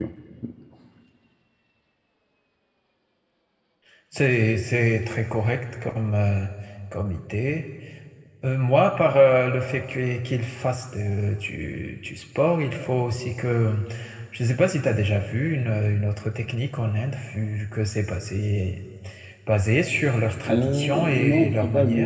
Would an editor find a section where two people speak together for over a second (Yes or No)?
Yes